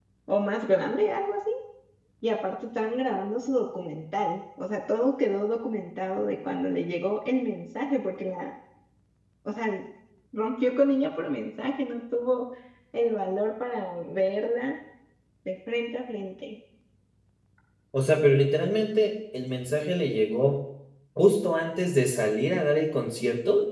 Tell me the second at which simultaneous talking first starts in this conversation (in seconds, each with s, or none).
none